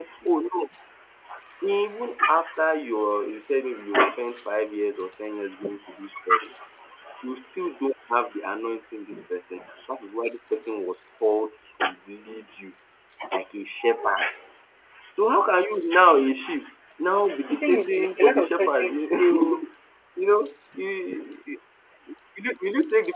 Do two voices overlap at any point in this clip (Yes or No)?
Yes